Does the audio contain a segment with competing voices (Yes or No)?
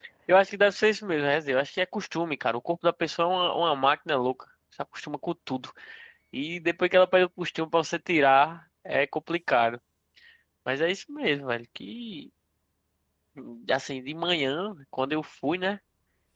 No